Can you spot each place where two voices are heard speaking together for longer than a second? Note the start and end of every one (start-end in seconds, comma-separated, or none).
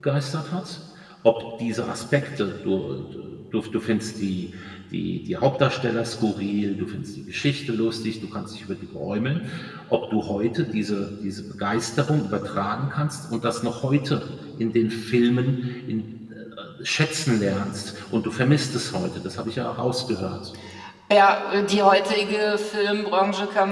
none